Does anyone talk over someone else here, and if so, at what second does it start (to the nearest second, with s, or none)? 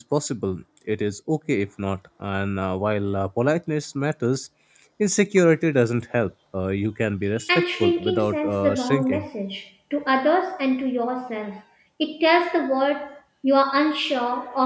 7 s